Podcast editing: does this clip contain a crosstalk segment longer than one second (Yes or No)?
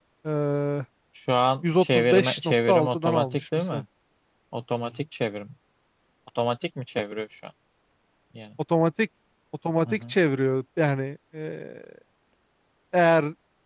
Yes